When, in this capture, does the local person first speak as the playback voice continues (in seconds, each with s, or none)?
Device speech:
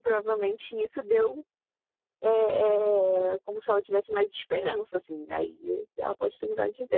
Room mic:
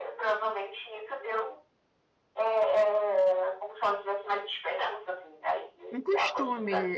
5.9 s